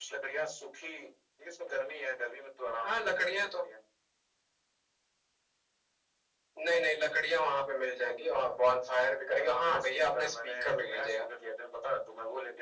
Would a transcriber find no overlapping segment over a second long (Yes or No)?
No